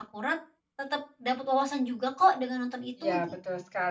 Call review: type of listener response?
taking over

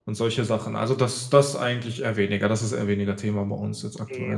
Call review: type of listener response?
taking over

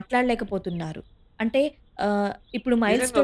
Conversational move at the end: taking over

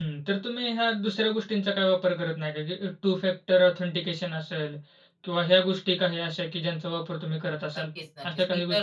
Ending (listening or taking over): taking over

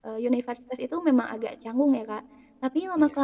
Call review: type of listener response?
listening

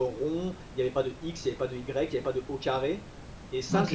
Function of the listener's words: taking over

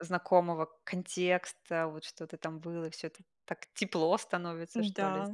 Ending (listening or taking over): taking over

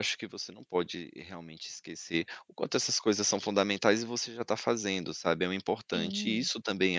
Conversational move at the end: listening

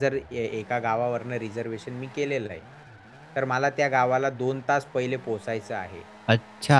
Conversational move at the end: taking over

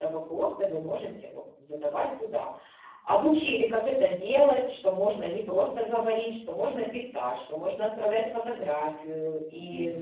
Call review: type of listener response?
taking over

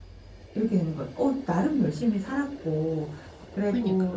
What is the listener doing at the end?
listening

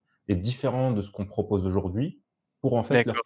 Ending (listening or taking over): listening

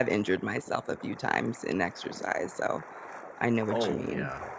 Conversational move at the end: taking over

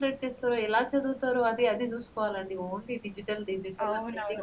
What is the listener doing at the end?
taking over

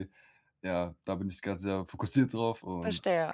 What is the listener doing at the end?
taking over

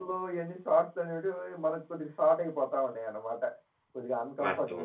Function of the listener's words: taking over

